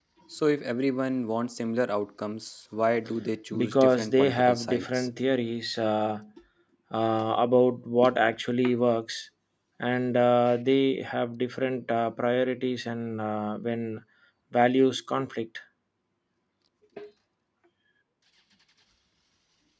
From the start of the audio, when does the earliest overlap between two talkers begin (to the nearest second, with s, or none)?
4 s